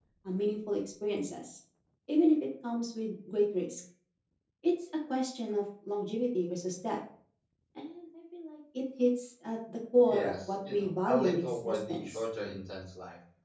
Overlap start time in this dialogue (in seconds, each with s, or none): 10.0 s